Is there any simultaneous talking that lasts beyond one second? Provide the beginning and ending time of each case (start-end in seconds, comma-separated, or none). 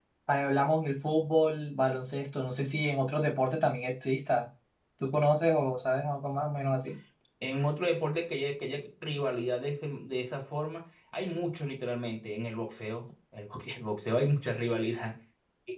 none